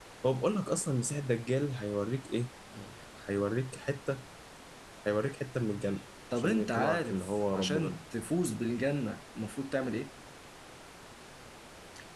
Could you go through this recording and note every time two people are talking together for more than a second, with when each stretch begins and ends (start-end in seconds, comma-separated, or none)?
6.4-8.0